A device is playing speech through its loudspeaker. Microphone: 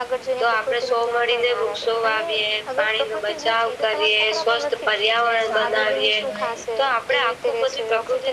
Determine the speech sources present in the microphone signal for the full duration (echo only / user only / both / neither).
both